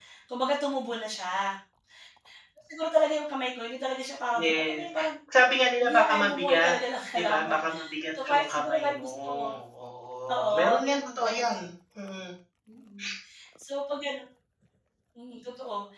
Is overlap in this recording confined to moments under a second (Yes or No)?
No